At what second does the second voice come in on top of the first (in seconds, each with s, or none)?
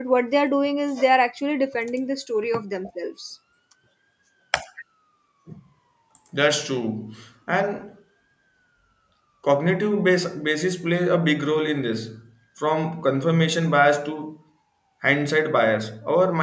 none